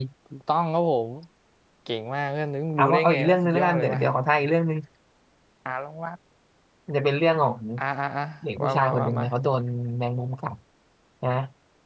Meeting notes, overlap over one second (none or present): present